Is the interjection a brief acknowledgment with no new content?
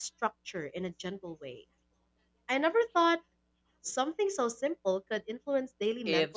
No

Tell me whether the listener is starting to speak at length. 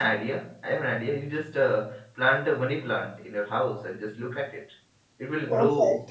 No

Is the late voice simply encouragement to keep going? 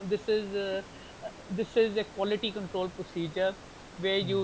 Yes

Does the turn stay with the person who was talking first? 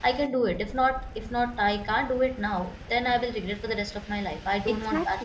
No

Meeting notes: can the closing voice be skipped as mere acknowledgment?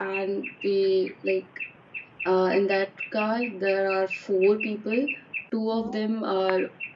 Yes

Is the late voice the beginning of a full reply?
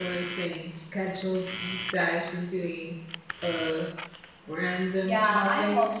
Yes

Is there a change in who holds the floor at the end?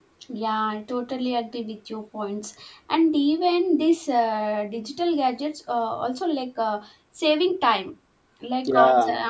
No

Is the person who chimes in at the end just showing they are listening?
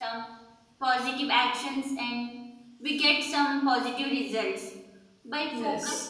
Yes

